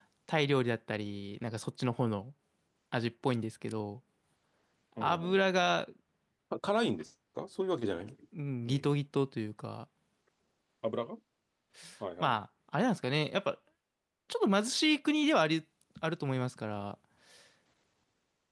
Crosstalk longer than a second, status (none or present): none